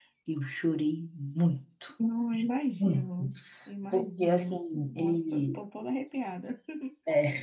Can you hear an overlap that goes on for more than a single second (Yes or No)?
Yes